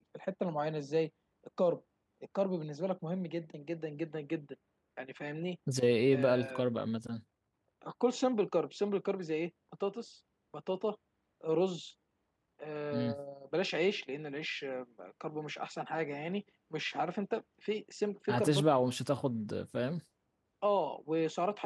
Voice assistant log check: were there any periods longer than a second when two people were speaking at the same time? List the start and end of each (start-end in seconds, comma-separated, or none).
none